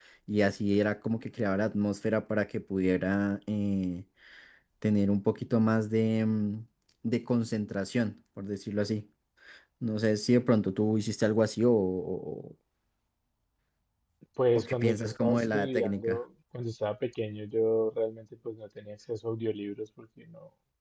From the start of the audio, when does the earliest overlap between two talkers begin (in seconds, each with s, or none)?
14.6 s